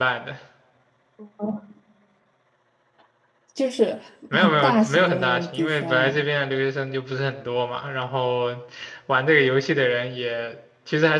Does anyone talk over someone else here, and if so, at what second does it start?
4.3 s

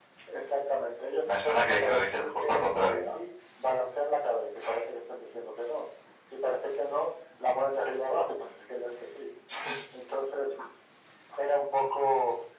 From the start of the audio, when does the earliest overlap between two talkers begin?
1.2 s

